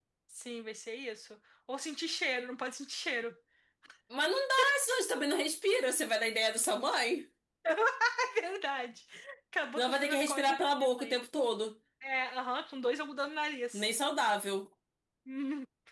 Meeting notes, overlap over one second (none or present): present